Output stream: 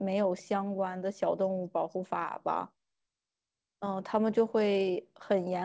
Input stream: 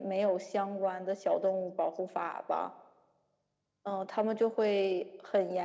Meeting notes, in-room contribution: none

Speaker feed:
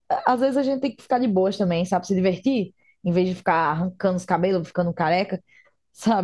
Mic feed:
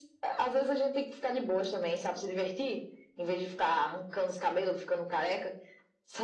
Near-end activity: none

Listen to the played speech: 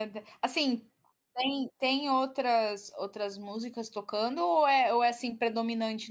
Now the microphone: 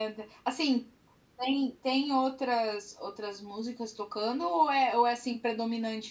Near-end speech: none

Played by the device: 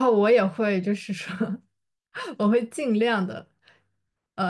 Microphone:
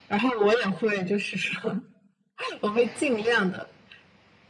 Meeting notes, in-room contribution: none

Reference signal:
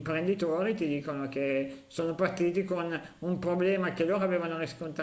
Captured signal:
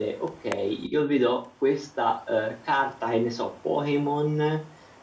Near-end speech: present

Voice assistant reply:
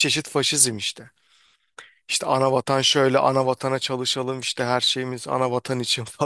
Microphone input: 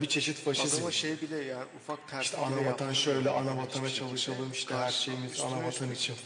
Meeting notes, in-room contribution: present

